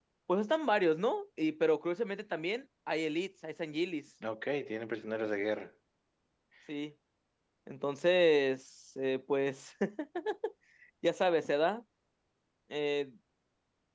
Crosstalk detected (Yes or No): No